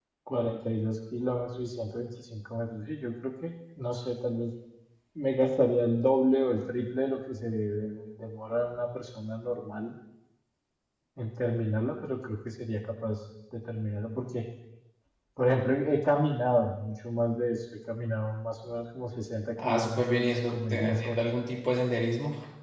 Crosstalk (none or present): present